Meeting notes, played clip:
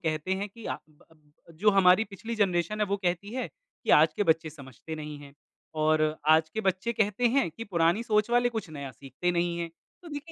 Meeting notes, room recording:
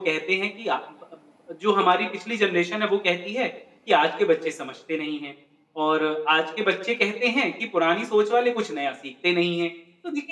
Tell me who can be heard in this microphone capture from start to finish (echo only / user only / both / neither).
echo only